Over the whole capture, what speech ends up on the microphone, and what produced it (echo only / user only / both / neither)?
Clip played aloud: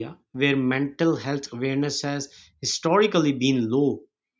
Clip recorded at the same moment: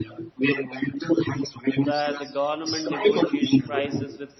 both